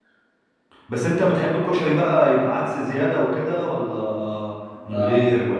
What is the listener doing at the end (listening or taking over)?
taking over